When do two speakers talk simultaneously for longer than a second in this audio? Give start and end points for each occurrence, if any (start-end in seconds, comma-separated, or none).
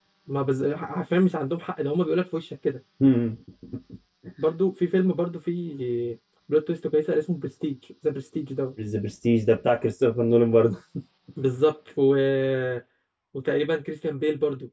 none